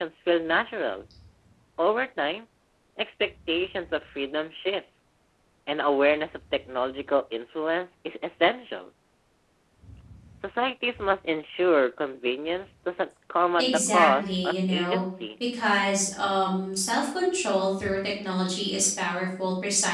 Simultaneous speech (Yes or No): Yes